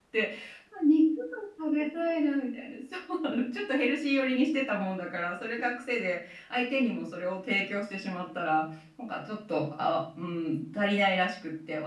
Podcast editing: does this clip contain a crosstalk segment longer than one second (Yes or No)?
No